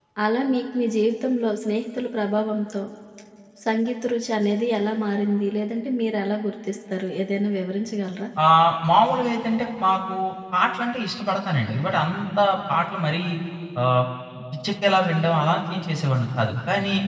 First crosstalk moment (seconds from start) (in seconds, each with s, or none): none